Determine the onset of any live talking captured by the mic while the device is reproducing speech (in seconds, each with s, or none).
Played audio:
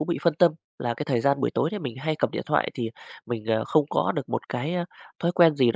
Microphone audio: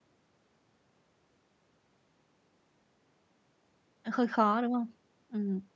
4.1 s